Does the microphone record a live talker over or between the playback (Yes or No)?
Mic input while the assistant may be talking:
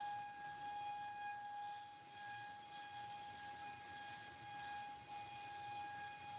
No